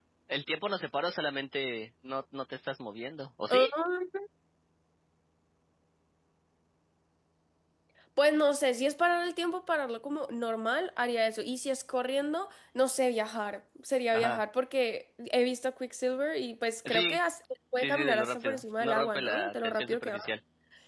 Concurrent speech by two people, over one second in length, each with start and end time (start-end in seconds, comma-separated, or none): 17.8-20.2